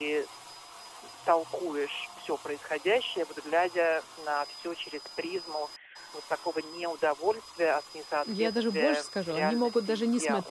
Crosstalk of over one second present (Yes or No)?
Yes